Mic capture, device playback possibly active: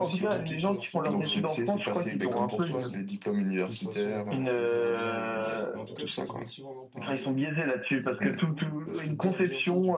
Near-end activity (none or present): present